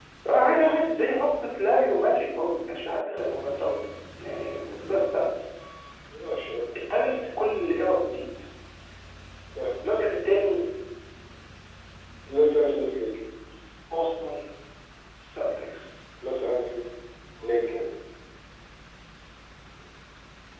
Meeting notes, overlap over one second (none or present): none